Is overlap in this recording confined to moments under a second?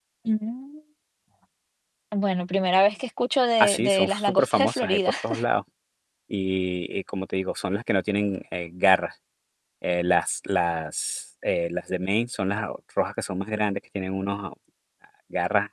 No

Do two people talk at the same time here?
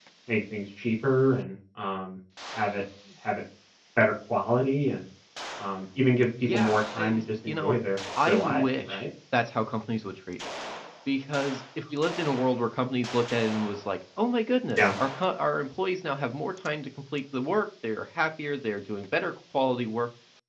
Yes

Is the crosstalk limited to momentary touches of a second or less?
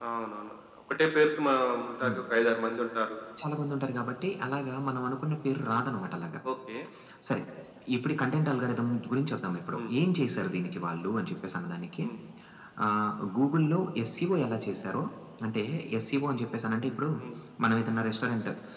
Yes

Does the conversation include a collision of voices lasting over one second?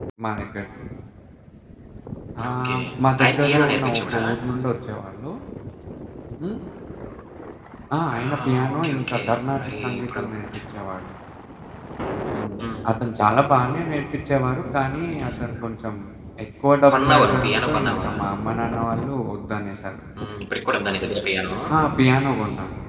Yes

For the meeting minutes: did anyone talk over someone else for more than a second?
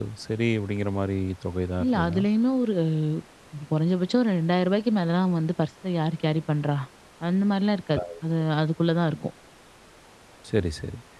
No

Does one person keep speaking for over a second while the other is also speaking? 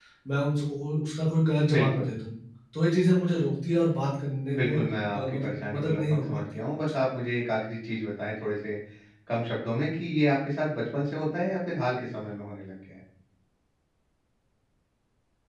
Yes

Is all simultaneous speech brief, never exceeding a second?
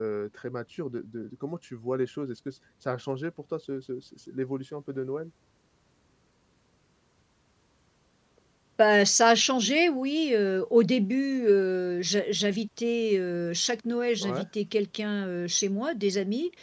Yes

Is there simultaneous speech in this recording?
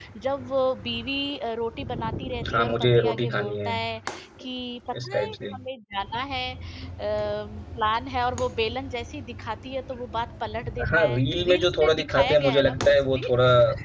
Yes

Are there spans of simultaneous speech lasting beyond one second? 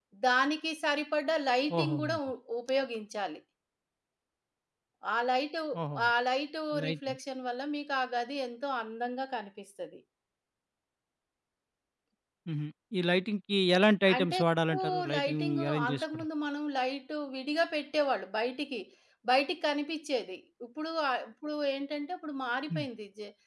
Yes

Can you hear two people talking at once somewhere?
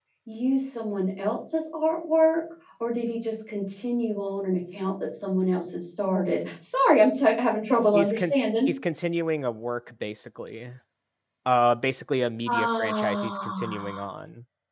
Yes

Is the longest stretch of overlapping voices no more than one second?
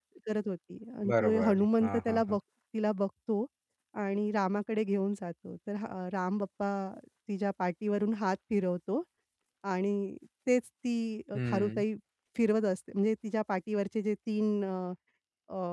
No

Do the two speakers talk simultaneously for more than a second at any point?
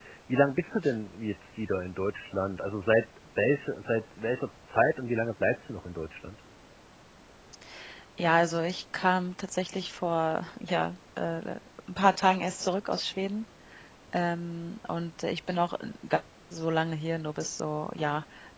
No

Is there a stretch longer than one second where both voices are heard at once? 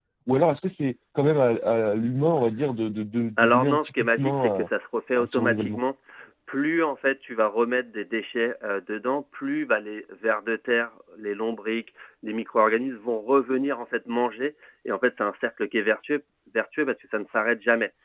Yes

